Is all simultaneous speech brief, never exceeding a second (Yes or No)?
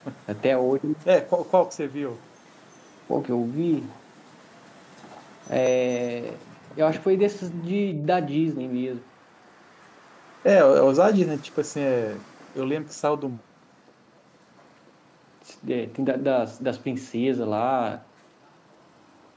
Yes